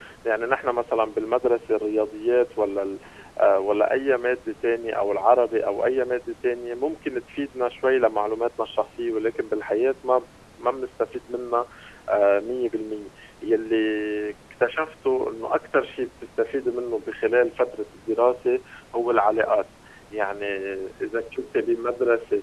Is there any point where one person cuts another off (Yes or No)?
No